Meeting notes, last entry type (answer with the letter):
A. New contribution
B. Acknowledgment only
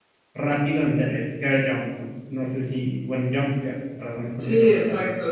A